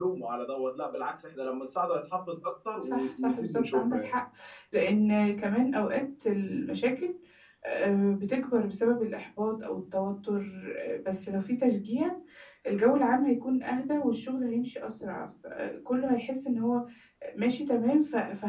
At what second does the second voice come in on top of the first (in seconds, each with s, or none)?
2.8 s